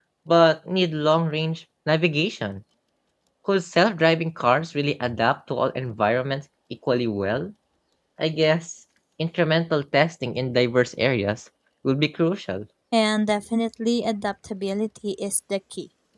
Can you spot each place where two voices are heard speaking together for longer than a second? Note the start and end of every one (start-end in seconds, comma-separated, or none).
none